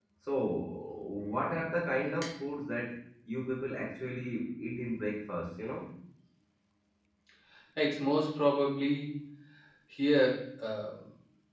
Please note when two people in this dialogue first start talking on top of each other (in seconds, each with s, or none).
none